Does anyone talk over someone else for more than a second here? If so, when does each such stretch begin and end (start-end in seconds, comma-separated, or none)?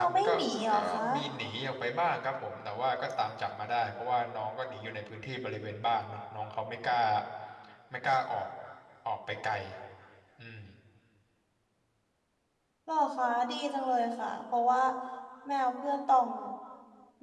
none